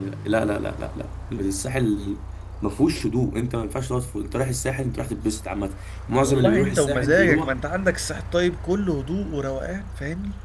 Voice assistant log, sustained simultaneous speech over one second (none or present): present